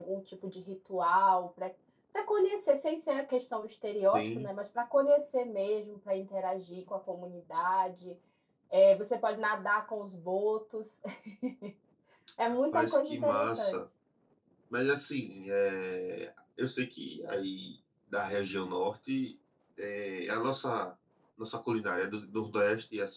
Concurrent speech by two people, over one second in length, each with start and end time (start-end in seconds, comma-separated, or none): 12.5-13.8